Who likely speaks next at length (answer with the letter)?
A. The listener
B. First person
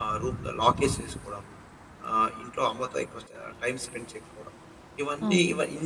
A